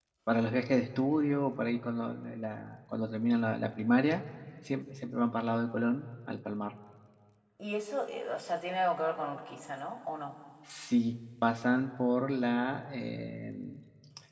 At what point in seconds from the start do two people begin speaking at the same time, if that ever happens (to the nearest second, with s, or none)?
none